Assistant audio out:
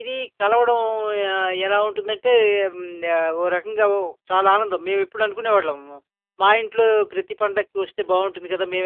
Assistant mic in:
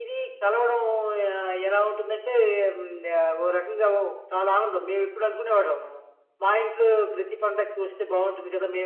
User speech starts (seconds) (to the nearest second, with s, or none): none